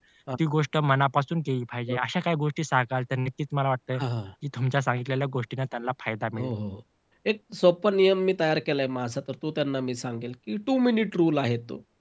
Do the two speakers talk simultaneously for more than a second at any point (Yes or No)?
No